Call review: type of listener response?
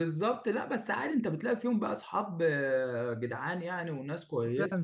taking over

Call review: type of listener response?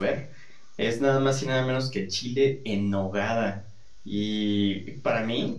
listening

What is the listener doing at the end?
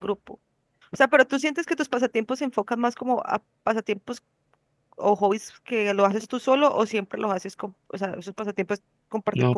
taking over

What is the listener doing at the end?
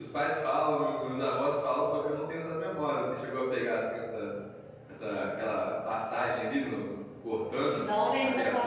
taking over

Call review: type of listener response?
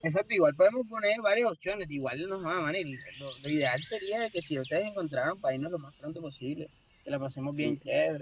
taking over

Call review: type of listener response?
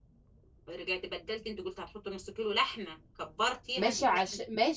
taking over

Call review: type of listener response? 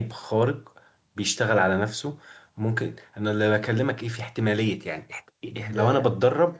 listening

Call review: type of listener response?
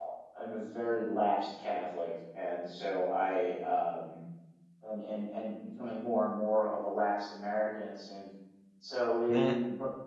listening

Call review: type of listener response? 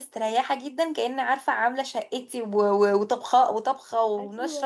listening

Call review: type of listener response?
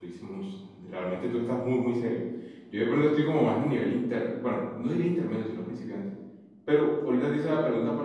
listening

